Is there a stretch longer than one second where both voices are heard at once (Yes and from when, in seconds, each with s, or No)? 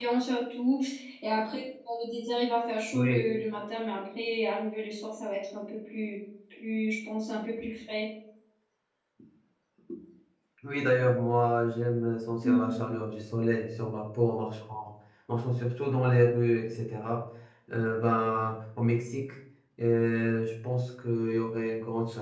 No